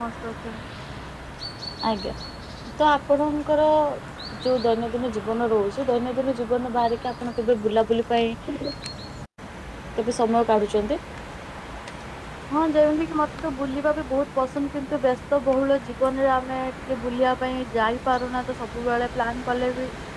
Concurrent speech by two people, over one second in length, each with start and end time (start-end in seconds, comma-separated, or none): none